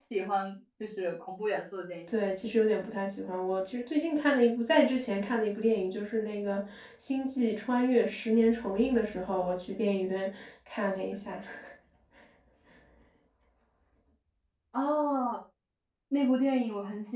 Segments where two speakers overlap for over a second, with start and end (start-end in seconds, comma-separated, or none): none